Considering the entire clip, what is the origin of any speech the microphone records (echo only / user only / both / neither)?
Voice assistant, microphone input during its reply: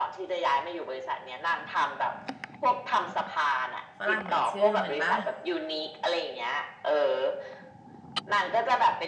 both